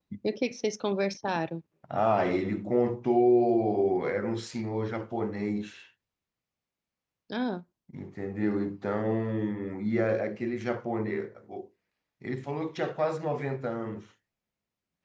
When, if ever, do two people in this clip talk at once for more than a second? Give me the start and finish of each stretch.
none

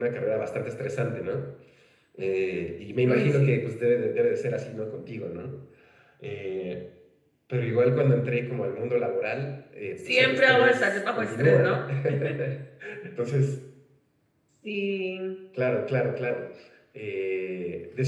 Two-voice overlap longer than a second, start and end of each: 10.0-11.8

